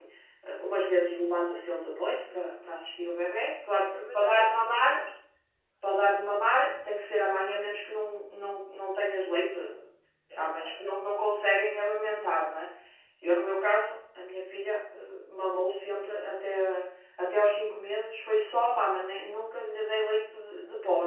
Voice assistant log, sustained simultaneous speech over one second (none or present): present